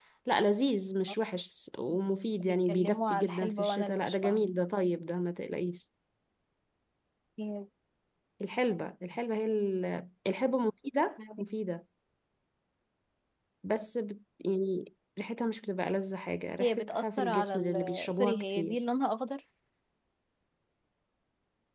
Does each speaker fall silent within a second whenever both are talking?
No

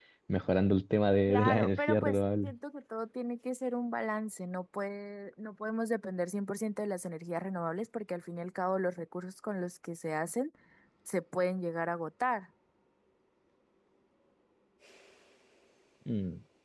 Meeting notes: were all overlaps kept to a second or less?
No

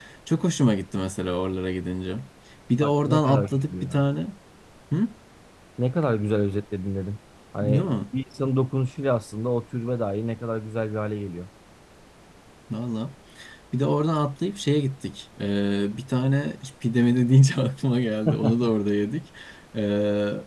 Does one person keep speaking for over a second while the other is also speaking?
Yes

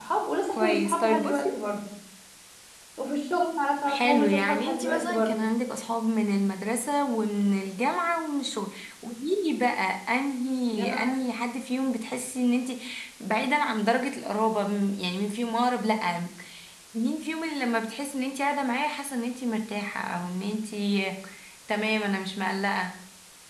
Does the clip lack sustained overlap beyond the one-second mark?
No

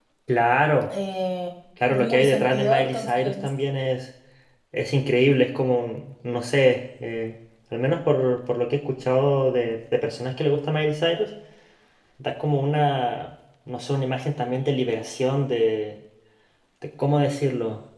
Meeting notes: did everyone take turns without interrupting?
No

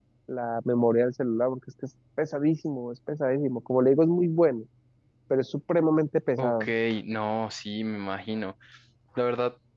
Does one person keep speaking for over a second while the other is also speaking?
No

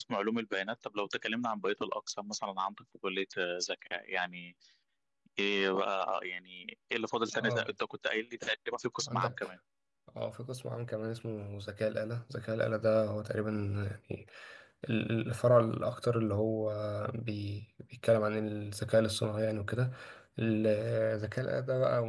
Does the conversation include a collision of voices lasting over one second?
No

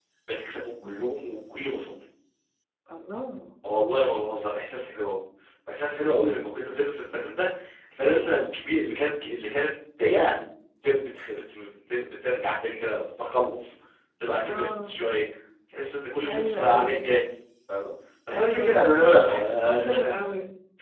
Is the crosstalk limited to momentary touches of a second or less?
No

